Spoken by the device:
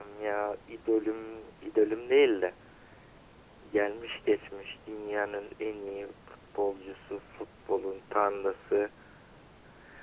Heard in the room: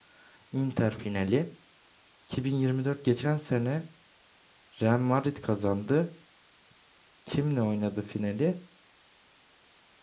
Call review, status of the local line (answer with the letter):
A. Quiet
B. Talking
B